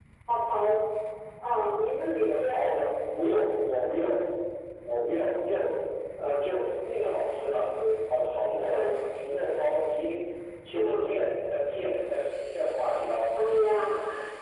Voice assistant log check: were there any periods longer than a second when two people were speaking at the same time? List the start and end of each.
none

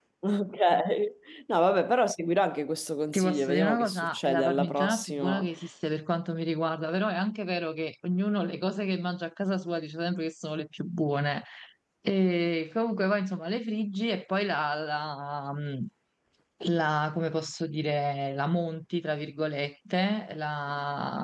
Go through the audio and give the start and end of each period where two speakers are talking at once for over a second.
3.1-5.5

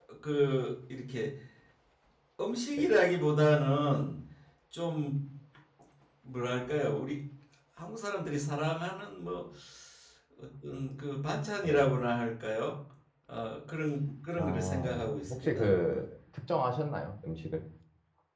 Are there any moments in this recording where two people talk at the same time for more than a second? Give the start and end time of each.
14.4-15.7

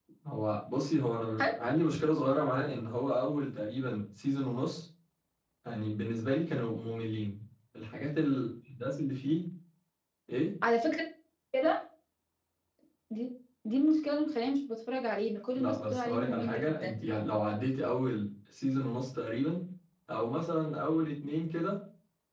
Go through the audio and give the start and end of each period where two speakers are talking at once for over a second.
15.6-17.0

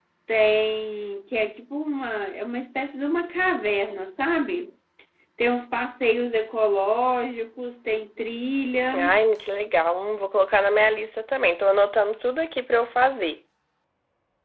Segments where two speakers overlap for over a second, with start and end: none

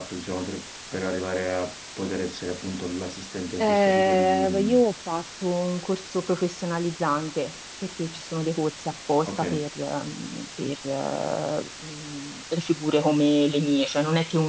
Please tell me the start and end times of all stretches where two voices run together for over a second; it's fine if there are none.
3.6-4.8

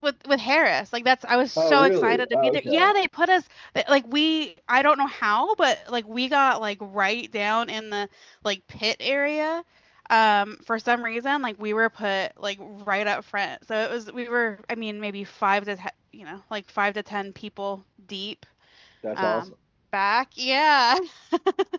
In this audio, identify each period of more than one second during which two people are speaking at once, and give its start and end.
1.6-2.9

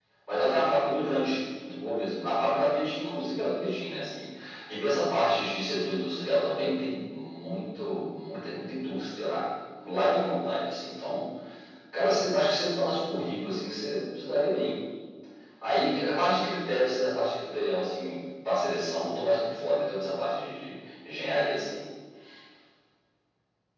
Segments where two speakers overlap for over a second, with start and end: none

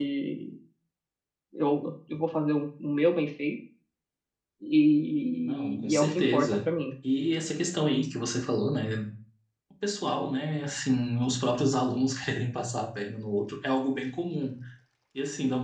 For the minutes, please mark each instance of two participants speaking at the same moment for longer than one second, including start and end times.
5.4-6.7

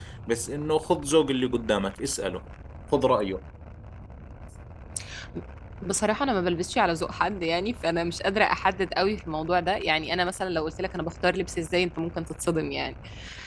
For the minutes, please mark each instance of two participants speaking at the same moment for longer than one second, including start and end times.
none

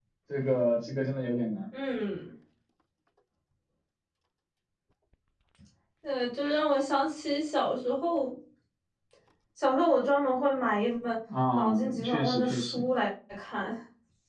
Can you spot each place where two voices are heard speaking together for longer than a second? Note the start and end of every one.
11.5-12.9

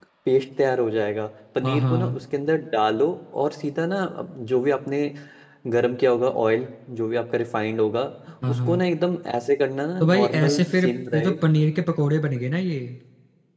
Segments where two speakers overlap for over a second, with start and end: 10.0-11.3

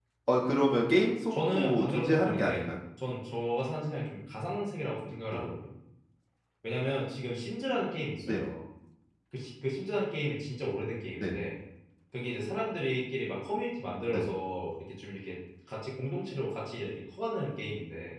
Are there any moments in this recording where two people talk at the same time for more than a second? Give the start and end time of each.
1.3-2.7

